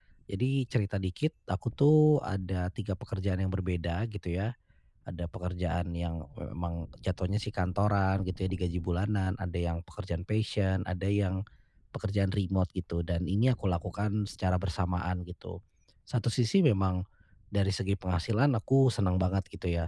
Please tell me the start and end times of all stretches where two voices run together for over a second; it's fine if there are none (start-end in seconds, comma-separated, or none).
none